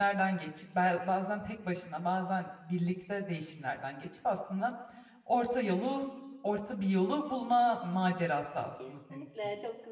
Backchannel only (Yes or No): No